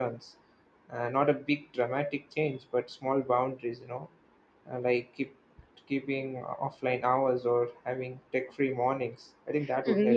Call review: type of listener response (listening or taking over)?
taking over